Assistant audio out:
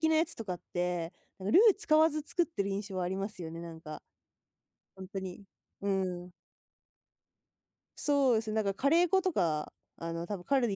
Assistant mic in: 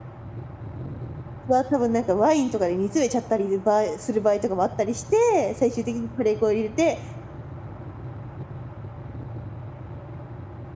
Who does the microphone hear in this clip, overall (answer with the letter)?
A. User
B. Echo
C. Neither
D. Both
A